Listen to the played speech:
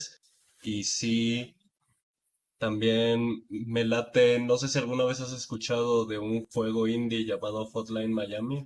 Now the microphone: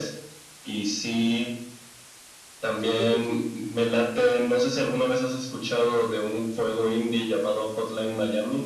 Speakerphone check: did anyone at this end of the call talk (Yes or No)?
Yes